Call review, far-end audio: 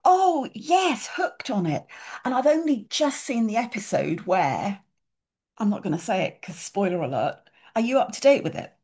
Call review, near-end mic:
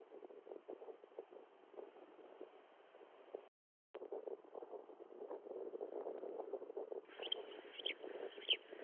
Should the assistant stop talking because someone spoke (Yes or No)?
No